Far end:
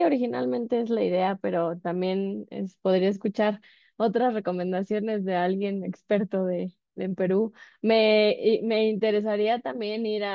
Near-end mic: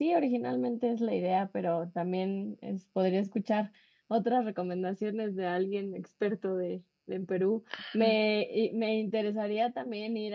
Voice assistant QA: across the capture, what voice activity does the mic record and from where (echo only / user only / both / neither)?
both